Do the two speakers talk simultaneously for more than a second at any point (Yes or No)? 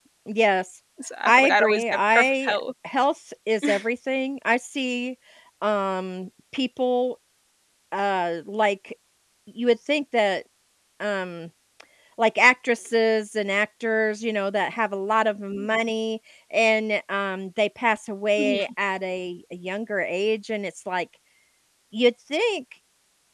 Yes